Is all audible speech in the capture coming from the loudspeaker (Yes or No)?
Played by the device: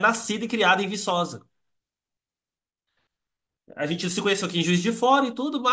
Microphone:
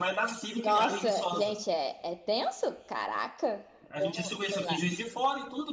No